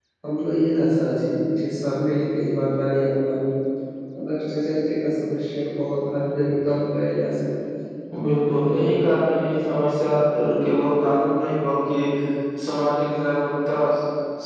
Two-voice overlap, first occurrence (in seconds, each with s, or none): none